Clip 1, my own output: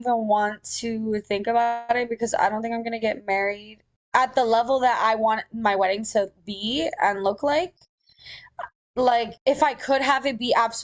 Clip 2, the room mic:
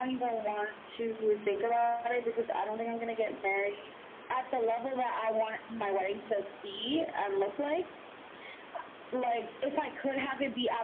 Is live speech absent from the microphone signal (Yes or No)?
Yes